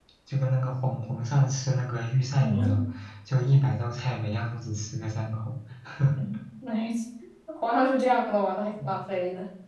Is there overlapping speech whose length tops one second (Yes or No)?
No